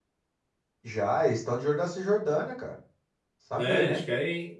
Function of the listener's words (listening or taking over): taking over